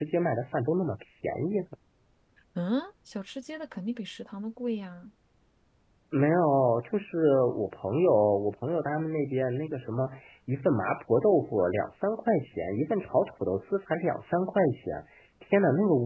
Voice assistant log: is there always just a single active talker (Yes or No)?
Yes